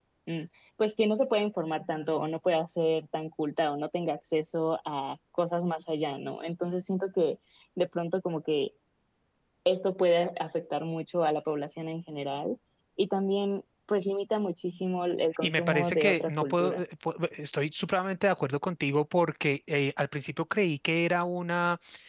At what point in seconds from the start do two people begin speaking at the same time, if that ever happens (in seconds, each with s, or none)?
15.4 s